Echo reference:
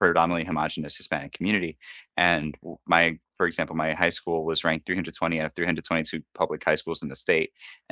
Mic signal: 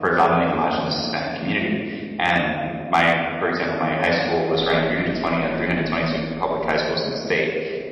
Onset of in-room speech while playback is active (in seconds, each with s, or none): none